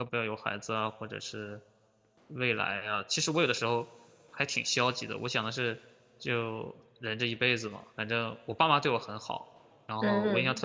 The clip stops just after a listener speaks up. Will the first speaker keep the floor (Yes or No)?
Yes